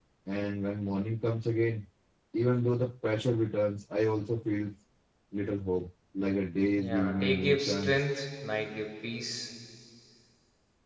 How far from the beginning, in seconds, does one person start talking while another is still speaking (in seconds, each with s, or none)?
6.8 s